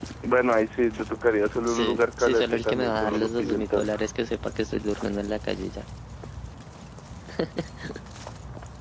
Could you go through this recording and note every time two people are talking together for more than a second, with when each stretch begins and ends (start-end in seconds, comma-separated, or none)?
1.6-4.0